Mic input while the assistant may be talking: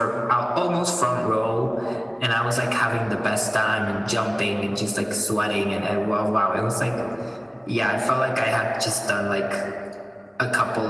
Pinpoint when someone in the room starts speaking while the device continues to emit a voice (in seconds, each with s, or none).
none